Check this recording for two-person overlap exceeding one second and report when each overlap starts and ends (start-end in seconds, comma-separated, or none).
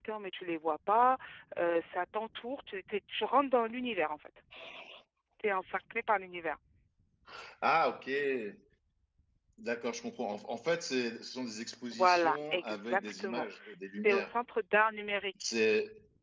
11.9-13.5